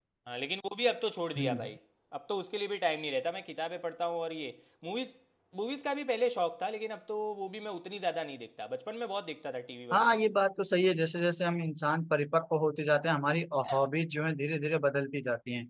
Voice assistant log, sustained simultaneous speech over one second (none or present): none